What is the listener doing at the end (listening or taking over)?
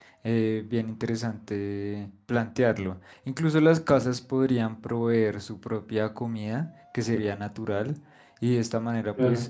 listening